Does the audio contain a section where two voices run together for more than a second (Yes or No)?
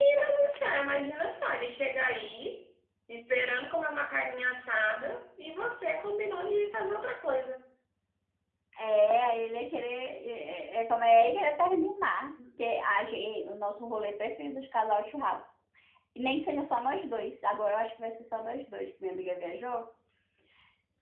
No